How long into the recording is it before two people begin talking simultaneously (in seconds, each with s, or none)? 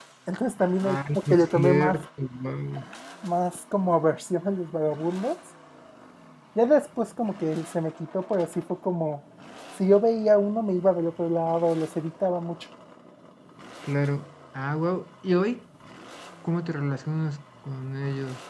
0.8 s